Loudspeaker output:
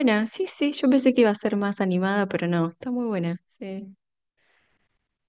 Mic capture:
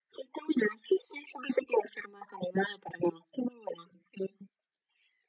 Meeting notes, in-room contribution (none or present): none